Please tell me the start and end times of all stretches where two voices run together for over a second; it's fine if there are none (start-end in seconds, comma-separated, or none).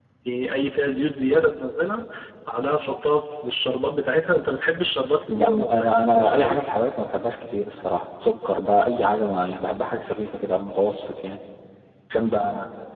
5.3-6.6